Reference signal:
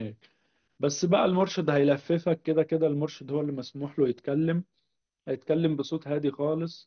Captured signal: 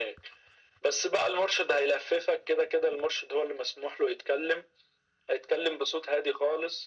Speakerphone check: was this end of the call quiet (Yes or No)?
Yes